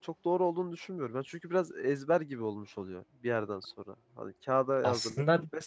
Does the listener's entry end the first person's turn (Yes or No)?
No